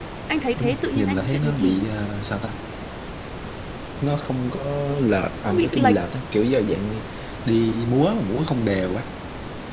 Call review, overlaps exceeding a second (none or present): present